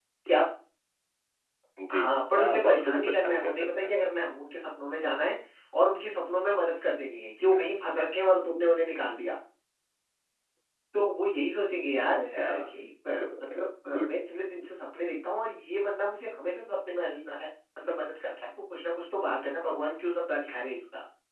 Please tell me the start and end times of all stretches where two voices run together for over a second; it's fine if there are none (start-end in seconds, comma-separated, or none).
1.9-3.9